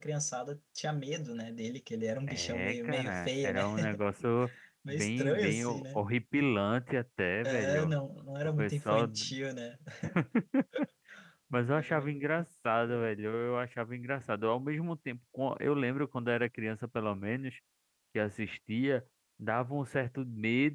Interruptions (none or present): present